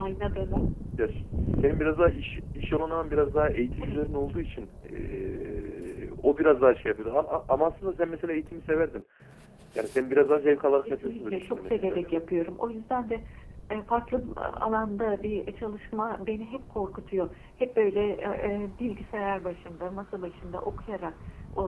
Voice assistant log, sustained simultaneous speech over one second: present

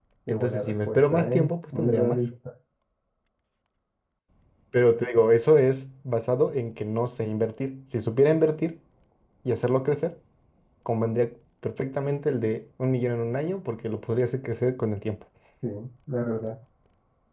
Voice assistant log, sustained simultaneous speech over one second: present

